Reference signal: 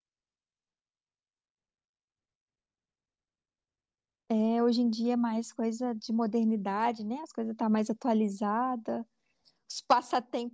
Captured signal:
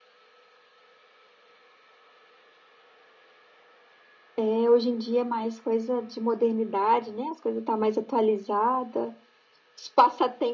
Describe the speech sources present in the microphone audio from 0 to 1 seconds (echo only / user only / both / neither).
neither